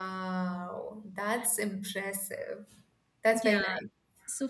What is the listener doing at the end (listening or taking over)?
taking over